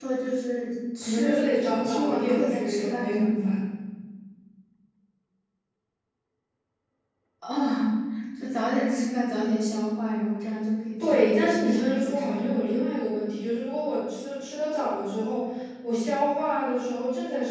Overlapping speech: Yes, from 1.0 s

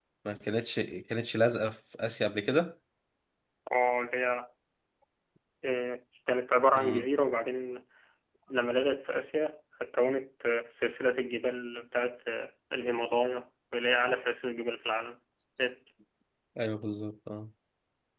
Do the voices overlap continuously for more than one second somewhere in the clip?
No

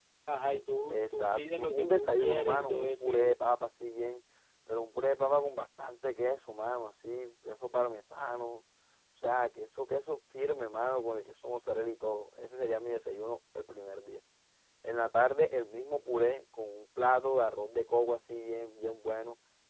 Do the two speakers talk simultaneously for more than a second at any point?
Yes, from 0.9 s

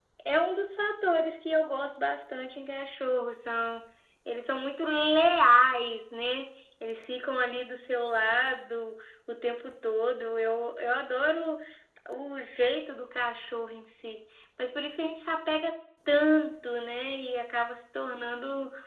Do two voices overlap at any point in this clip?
No

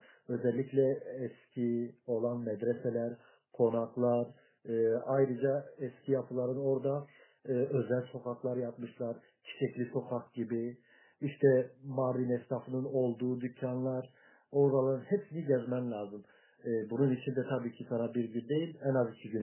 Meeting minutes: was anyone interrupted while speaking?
No

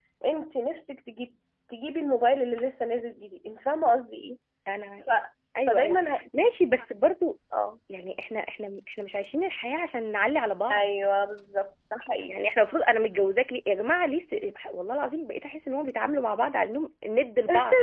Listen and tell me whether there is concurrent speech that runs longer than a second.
No

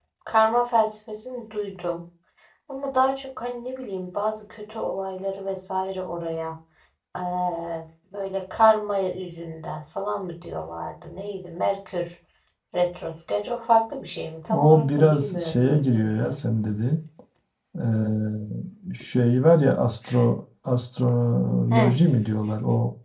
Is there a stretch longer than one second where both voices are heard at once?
Yes, from 14.5 s

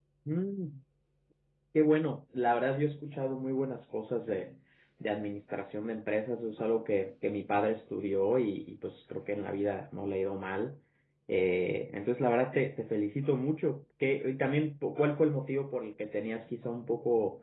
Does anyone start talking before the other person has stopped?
No

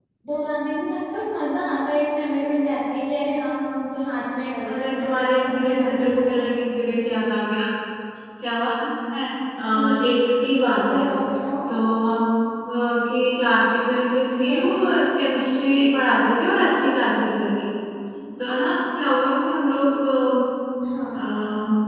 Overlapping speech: Yes, from 4.6 s

